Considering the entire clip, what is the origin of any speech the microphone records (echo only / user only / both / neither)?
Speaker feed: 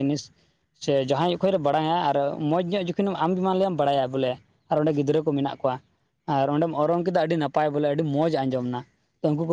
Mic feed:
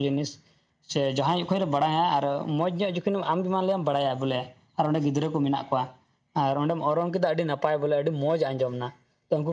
echo only